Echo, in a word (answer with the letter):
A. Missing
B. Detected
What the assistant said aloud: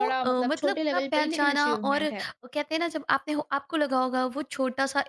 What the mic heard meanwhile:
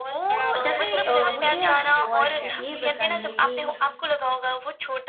B